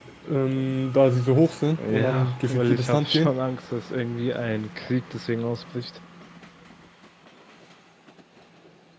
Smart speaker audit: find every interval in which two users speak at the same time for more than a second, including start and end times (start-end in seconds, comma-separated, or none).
1.9-3.3